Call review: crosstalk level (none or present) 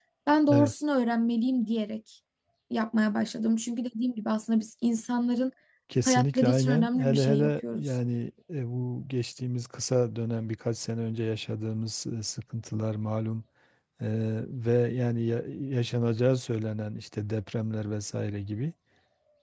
present